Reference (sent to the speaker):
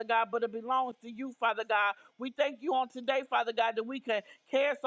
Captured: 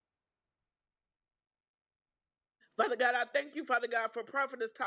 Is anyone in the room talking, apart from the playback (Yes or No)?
Yes